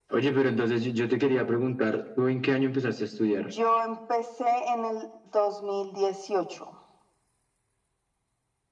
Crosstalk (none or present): none